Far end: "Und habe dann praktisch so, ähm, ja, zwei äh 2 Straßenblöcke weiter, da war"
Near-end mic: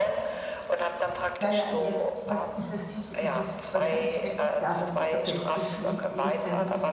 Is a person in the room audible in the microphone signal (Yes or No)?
Yes